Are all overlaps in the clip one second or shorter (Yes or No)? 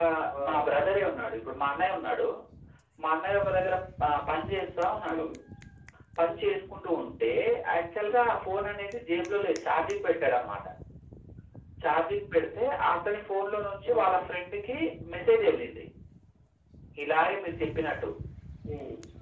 Yes